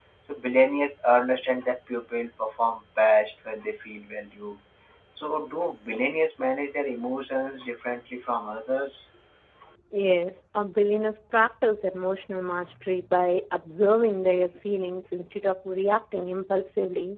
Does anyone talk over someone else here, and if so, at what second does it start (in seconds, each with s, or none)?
none